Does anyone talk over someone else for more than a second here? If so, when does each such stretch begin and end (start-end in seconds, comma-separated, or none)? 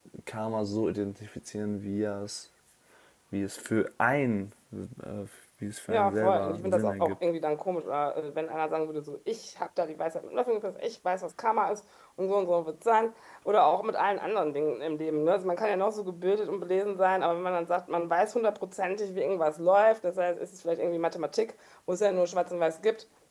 5.9-7.2